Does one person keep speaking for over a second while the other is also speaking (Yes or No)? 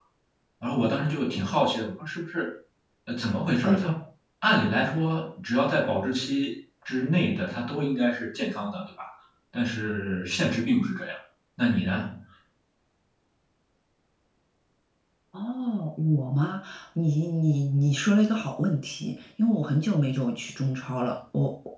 No